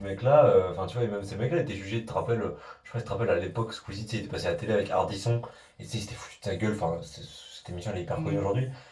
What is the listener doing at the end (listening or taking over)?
listening